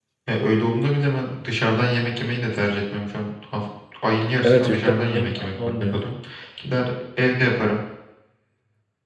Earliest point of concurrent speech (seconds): 4.4 s

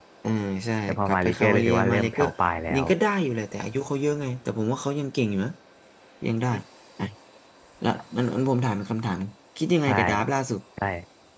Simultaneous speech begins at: 0.9 s

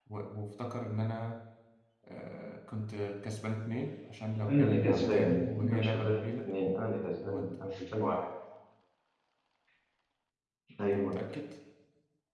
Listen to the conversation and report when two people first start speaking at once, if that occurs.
4.5 s

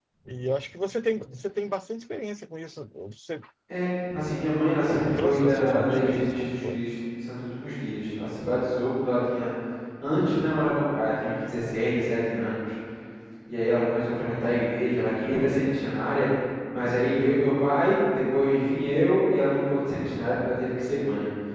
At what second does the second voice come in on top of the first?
5.2 s

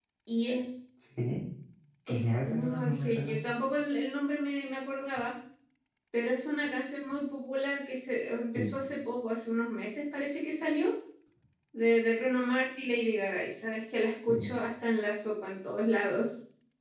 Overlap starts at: 2.1 s

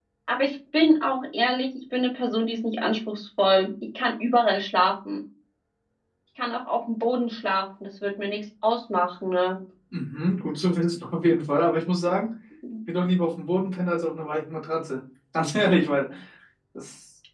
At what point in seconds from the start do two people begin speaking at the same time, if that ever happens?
none

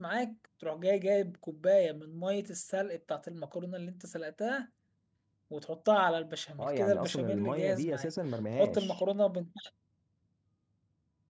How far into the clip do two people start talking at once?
6.6 s

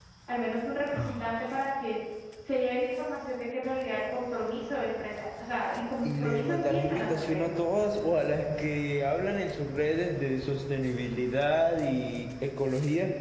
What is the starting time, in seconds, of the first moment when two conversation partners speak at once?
6.0 s

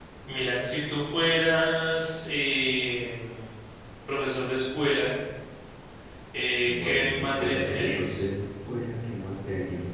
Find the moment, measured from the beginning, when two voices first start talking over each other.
6.6 s

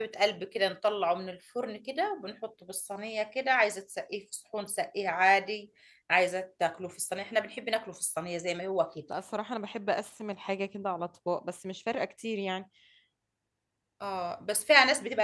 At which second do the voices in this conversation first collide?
none

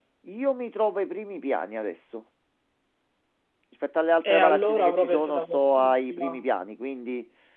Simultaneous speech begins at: 4.2 s

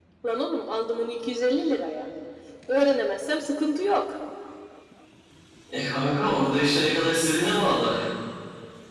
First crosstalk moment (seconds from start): none

